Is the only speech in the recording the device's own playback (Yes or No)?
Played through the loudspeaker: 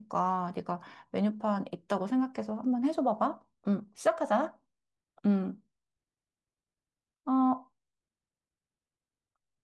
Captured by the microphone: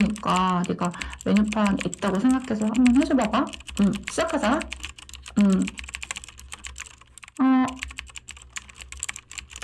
Yes